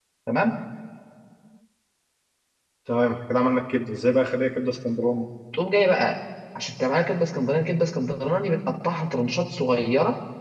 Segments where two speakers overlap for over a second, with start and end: none

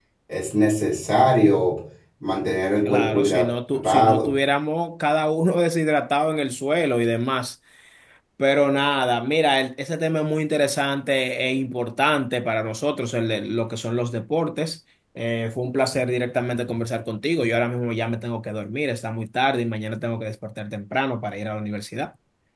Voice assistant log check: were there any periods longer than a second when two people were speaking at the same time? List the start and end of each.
2.8-4.3

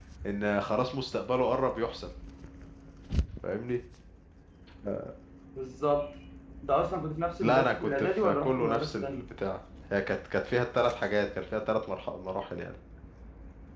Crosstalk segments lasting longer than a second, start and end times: 7.4-9.2

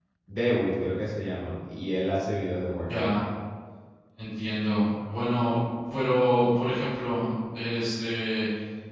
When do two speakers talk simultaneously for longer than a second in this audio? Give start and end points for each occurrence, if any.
none

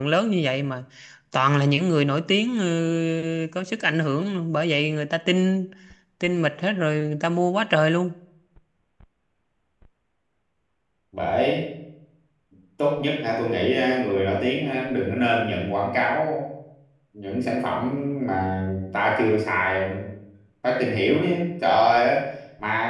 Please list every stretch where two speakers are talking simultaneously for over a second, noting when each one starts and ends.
none

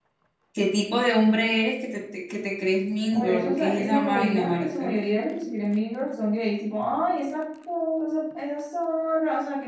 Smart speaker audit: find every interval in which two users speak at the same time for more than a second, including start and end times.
3.1-4.9

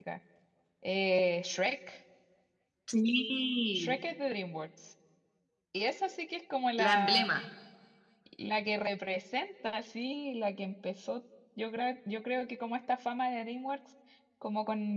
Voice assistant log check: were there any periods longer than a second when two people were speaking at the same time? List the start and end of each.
none

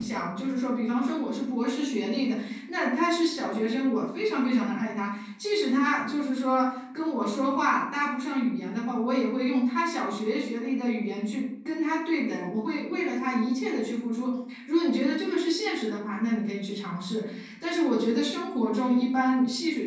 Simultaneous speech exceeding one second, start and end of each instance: none

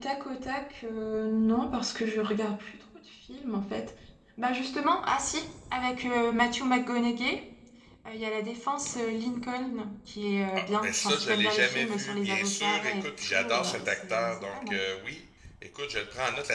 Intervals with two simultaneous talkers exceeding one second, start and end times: 10.6-14.8

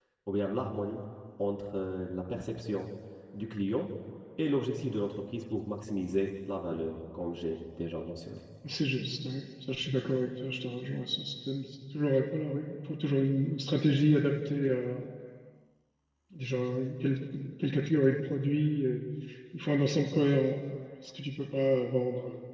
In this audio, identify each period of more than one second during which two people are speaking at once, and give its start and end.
none

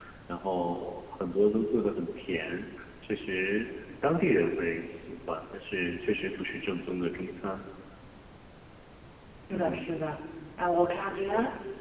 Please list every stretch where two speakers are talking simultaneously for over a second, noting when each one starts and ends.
none

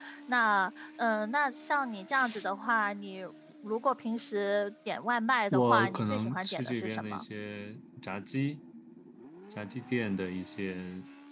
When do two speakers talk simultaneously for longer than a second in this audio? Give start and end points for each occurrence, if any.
5.5-7.2

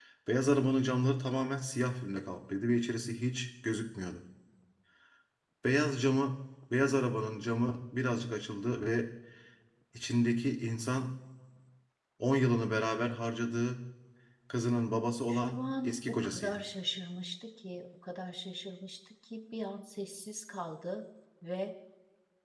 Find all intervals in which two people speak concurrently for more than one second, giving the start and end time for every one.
15.3-16.6

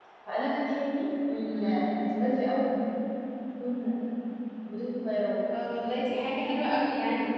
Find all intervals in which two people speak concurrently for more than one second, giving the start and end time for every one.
none

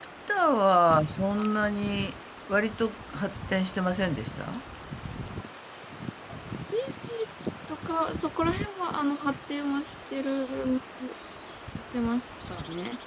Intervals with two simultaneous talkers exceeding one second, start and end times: none

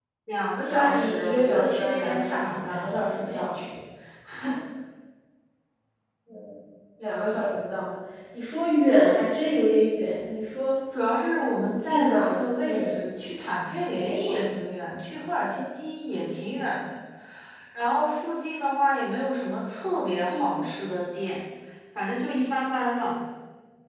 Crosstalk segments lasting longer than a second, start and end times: 0.7-3.5, 11.6-13.0

